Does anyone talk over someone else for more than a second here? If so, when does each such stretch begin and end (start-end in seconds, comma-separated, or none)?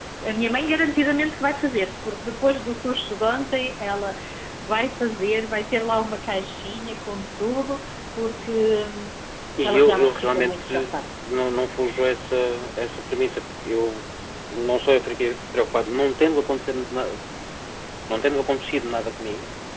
9.6-10.9